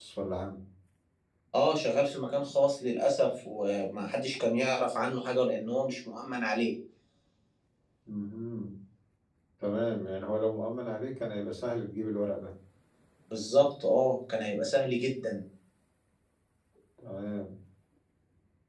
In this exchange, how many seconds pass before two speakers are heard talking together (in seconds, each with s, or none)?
none